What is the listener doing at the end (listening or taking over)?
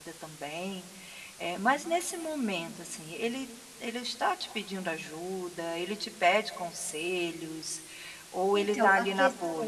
taking over